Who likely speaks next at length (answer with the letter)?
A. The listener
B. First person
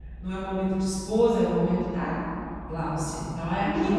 A